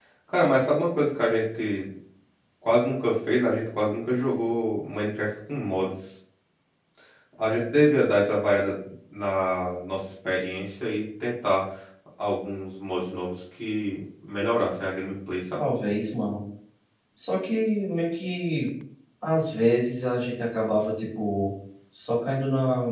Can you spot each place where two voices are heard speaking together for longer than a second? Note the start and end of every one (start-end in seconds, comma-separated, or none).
none